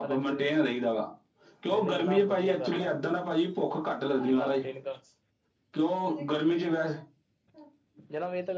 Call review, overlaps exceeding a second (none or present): present